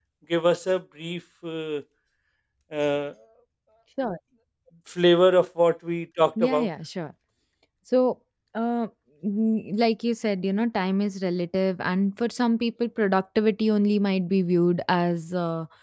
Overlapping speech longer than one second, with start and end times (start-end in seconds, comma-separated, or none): none